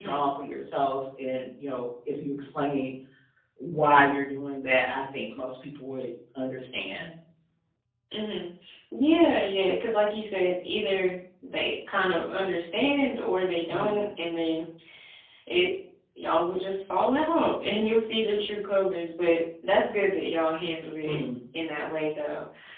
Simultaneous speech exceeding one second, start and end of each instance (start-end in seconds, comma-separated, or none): none